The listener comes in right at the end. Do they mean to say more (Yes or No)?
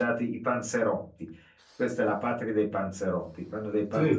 No